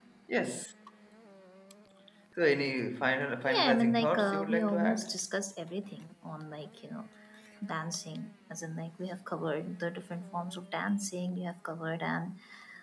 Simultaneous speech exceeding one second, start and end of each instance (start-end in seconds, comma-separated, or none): 3.5-5.2